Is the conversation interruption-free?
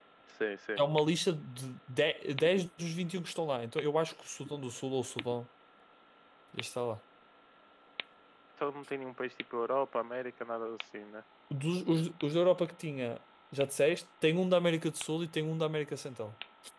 Yes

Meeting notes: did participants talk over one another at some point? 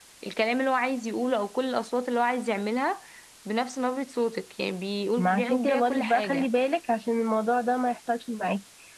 Yes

